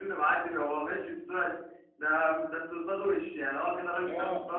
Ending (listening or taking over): taking over